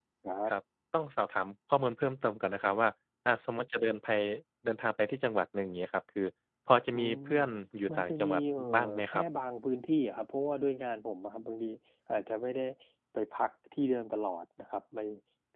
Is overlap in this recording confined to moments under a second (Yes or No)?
No